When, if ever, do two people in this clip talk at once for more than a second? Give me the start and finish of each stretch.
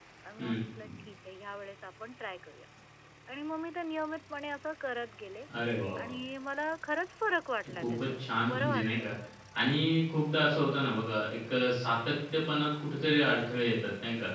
7.7-9.1

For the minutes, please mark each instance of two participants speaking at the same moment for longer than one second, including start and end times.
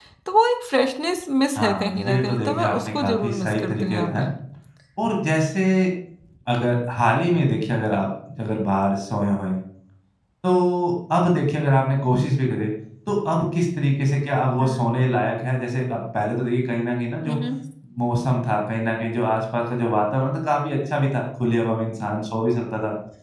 1.6-4.2

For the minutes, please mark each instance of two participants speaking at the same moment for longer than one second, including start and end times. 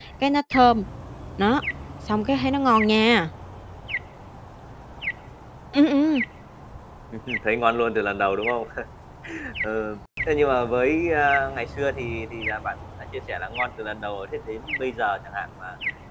none

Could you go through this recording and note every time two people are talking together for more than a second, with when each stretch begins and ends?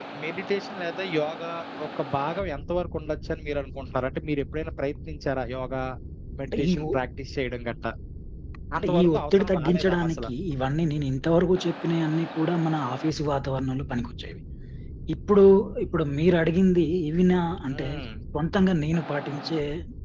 8.8-10.3

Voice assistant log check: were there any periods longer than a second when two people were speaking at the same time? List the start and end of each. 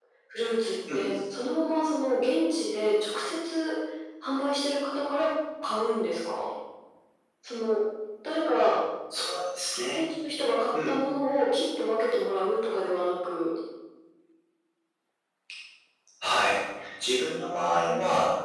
none

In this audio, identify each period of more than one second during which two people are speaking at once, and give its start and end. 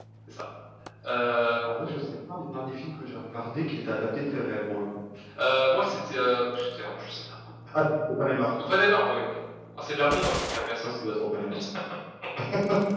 none

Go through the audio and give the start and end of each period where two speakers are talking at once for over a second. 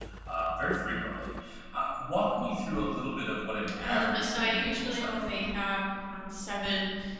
3.8-5.5

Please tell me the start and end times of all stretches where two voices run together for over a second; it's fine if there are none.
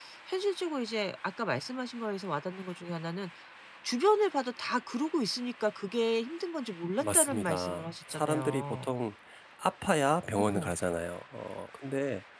7.0-8.9

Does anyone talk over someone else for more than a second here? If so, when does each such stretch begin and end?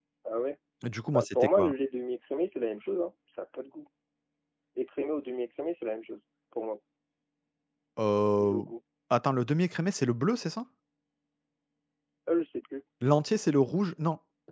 none

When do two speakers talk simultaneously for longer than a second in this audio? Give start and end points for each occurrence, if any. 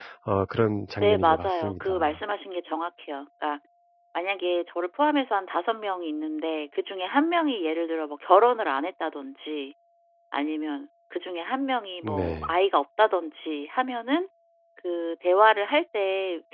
1.0-2.2

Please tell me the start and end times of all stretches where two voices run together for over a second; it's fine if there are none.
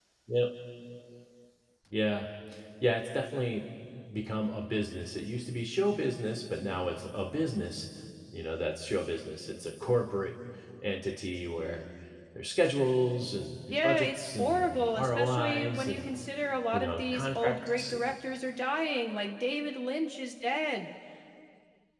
13.7-16.1, 16.7-18.1

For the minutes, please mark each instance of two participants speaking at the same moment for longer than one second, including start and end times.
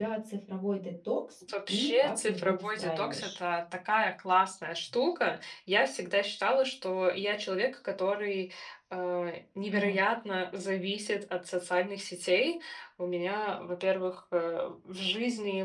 1.7-3.4

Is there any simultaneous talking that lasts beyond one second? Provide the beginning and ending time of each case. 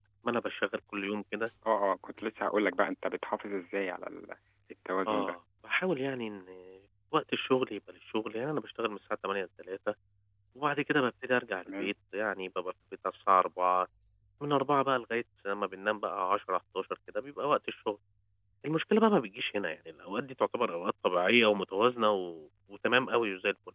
none

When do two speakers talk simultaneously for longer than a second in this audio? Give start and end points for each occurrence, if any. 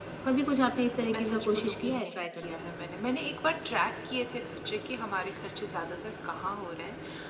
1.1-2.8

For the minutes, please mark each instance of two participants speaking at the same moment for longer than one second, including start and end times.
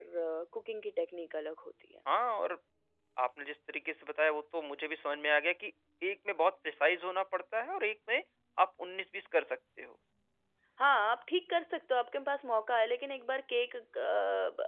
none

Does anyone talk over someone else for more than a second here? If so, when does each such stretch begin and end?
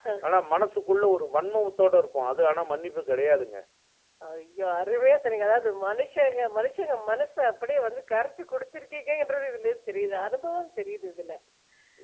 none

